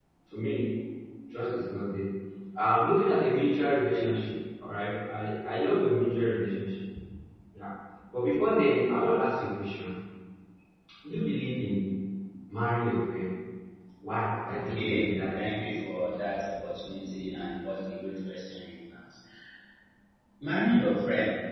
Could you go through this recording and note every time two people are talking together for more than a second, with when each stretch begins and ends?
14.6-15.8

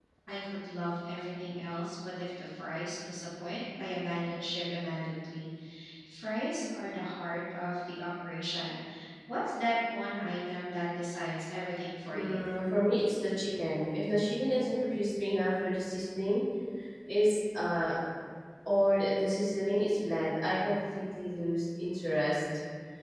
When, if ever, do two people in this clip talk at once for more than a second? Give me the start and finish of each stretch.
none

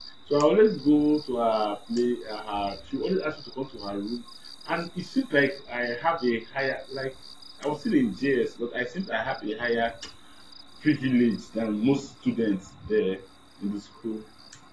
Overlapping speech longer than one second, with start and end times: none

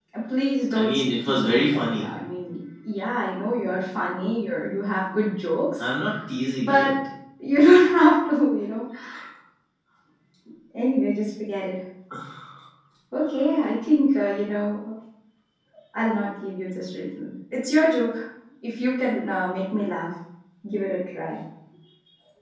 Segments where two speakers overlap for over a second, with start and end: 0.8-2.0

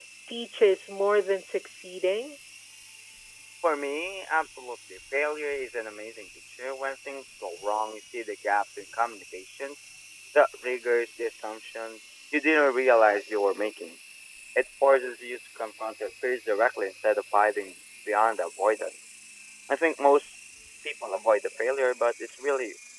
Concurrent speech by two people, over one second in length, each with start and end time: none

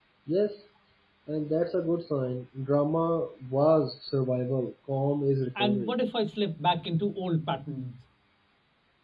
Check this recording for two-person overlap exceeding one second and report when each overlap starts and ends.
none

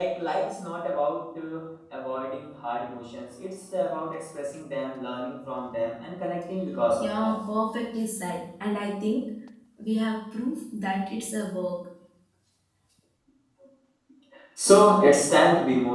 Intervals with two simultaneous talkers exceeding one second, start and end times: none

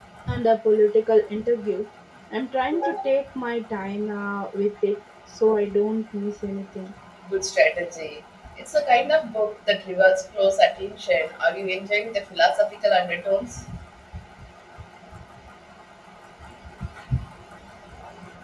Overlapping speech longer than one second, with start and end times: none

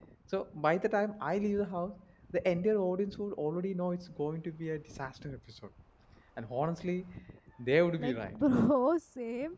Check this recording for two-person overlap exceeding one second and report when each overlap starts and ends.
none

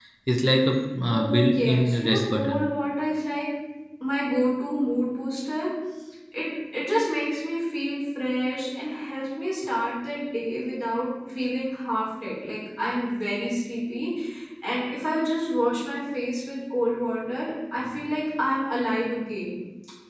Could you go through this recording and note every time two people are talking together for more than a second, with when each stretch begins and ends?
1.1-2.6

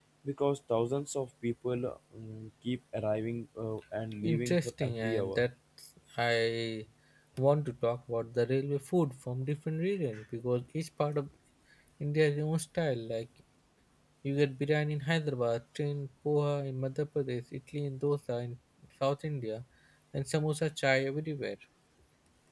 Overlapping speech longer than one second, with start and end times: 4.2-5.4

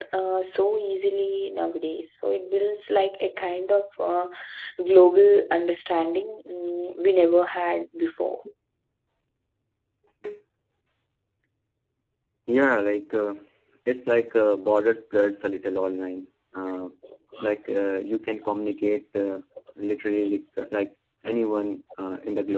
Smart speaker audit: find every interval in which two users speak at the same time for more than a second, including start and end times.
none

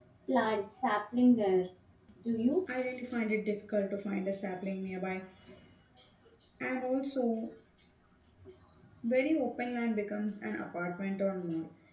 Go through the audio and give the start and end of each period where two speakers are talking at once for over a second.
none

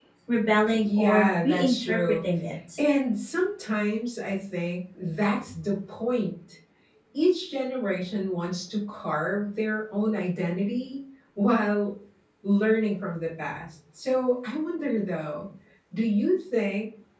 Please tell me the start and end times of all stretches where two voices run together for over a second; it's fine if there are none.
0.8-2.1

